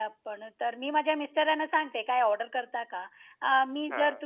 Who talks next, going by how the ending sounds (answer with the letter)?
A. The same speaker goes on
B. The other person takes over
A